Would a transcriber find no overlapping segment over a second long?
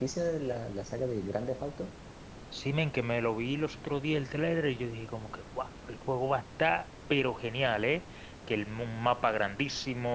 Yes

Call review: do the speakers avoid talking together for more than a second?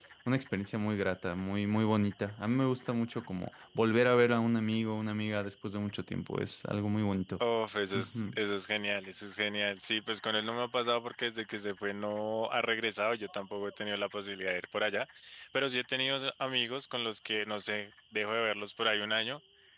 Yes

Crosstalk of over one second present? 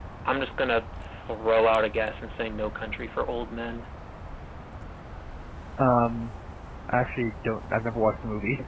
No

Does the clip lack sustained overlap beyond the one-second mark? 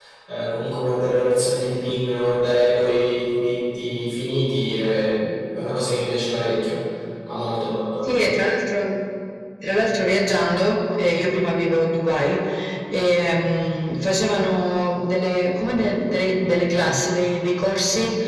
Yes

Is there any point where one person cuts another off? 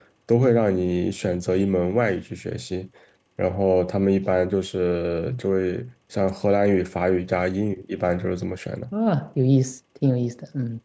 No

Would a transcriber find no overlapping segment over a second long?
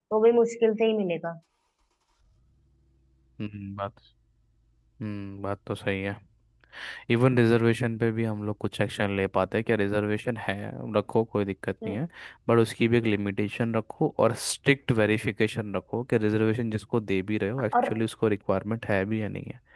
Yes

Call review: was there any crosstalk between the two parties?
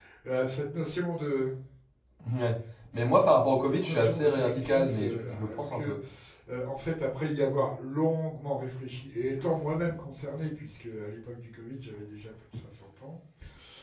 Yes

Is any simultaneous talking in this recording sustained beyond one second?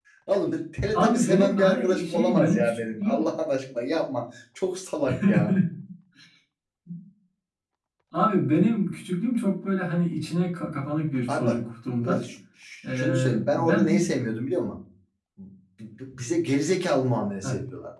Yes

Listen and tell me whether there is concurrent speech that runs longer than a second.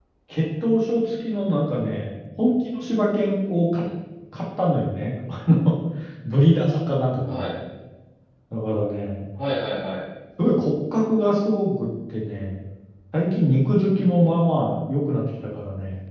No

